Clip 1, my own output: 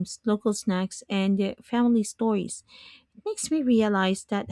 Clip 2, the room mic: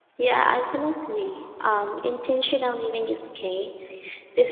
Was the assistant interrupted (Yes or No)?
Yes